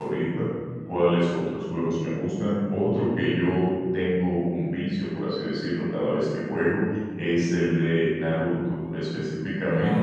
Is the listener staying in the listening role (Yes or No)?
Yes